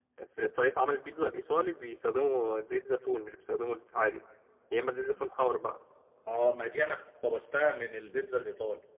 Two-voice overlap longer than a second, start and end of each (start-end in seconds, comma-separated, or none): none